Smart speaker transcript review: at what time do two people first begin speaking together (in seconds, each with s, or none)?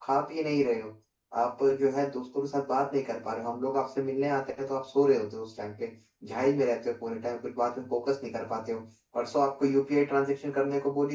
none